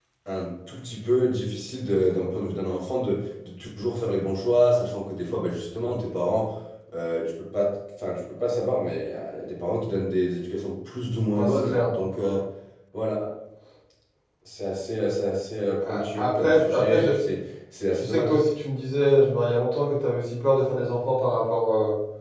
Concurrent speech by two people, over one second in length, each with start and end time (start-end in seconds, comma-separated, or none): 15.8-17.1